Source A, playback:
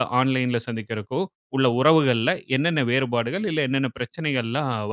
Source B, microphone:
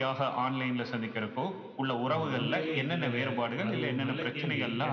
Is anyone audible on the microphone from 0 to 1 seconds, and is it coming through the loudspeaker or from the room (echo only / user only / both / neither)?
echo only